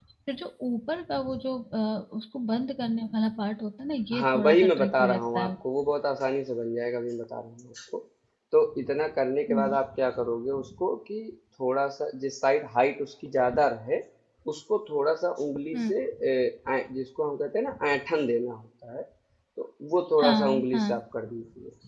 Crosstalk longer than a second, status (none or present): present